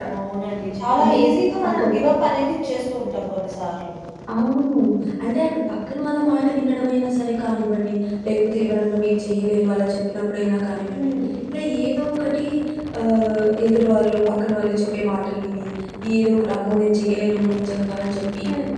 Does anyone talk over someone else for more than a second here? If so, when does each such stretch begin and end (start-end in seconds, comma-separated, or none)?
none